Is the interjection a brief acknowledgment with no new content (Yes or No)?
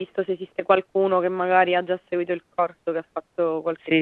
No